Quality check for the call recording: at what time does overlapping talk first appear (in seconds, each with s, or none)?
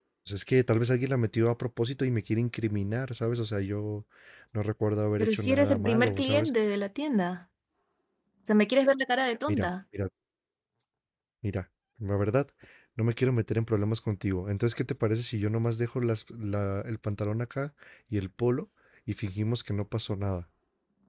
5.2 s